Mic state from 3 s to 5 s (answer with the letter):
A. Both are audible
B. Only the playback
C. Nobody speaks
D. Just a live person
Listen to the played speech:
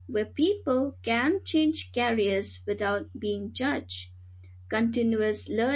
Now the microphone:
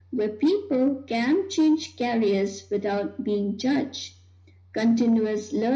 B